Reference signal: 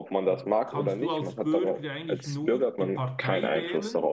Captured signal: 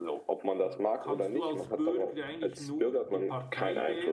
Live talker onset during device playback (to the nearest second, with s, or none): none